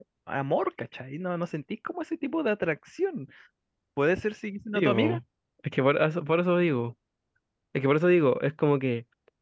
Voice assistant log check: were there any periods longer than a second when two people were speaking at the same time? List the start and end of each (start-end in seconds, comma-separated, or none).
none